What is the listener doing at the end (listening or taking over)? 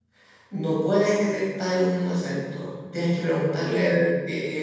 listening